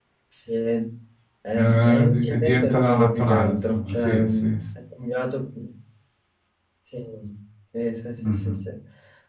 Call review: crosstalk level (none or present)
present